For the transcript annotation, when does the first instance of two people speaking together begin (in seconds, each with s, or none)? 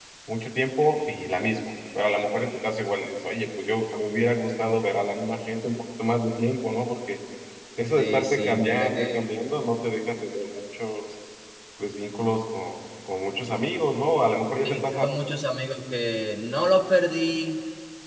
8.0 s